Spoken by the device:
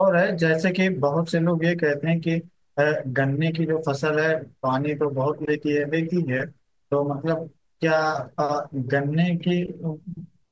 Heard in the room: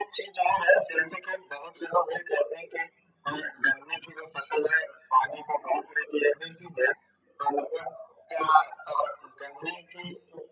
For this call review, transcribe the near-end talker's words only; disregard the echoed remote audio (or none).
none